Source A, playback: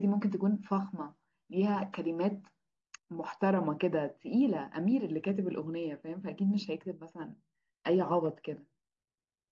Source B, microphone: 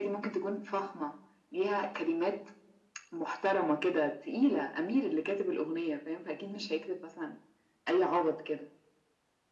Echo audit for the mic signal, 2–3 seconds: echo only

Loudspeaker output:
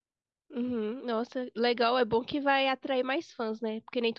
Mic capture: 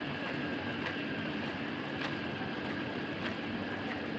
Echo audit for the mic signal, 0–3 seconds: neither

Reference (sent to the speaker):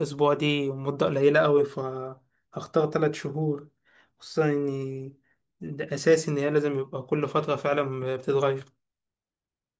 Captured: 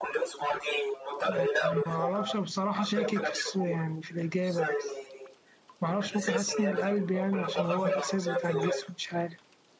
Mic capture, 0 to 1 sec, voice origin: echo only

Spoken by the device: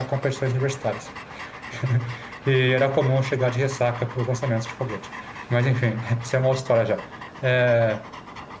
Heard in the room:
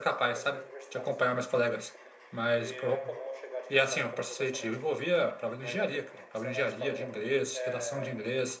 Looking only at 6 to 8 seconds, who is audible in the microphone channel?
both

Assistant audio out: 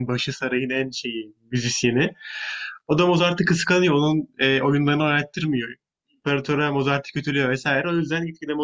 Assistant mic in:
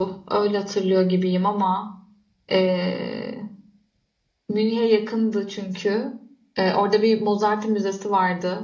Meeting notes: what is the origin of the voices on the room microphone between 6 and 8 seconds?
user only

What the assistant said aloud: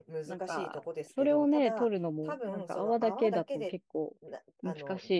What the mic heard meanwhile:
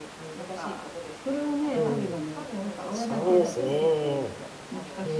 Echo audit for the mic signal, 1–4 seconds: both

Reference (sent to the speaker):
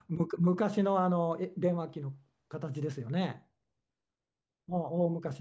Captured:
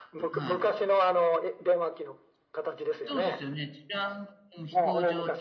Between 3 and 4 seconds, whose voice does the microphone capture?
both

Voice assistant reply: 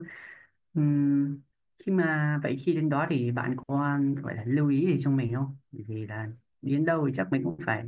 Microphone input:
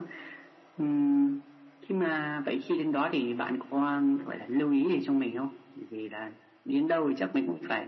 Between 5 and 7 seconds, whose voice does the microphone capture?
echo only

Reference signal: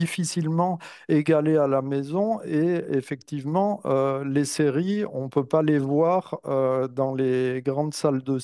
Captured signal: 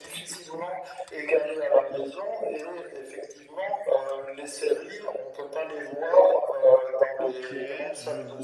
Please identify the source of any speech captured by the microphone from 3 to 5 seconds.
echo only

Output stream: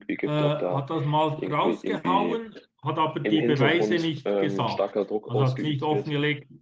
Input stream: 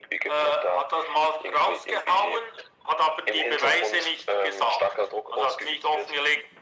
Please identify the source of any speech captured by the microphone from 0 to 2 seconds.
echo only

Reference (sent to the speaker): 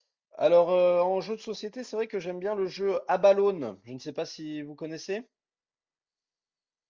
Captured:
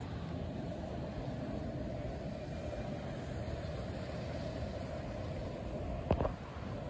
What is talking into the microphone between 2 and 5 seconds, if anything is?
neither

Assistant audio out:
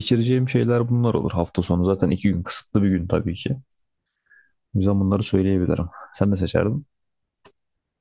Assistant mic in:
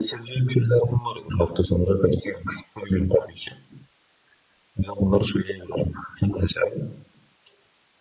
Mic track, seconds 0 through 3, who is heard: echo only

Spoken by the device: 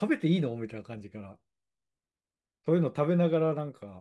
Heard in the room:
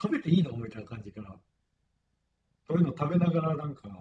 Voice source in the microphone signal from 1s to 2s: echo only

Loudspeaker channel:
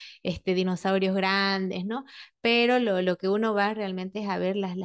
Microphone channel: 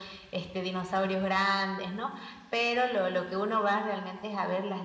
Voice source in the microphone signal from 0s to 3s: echo only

